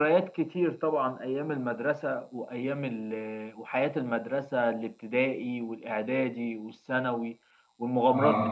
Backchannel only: Yes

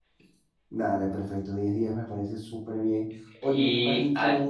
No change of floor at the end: Yes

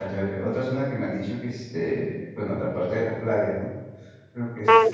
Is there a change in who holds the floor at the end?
Yes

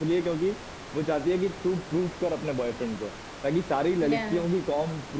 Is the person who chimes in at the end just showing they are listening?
Yes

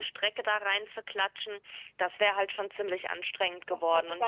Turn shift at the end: Yes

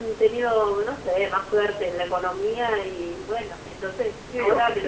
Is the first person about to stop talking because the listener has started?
Yes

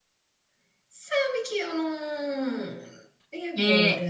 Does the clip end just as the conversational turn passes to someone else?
Yes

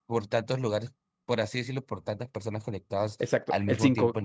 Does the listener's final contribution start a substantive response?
Yes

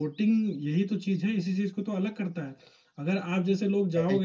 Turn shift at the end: No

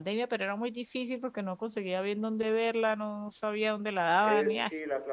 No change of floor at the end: No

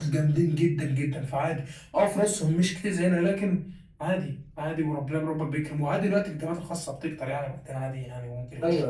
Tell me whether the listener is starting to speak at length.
Yes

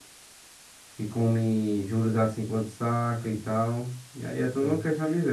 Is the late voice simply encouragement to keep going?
No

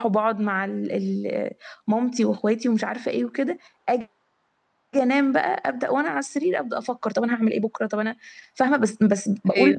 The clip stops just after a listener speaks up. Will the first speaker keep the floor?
Yes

